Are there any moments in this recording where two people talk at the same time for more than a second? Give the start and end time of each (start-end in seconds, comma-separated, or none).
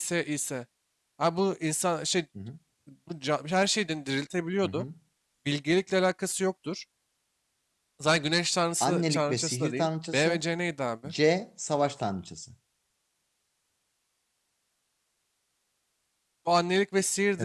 8.8-10.4